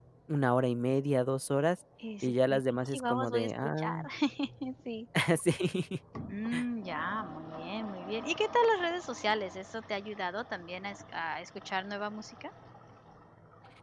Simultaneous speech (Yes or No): Yes